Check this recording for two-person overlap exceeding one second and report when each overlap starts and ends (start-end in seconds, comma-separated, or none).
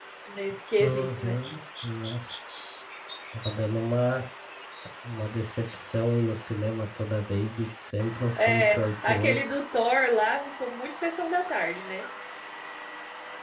8.4-9.6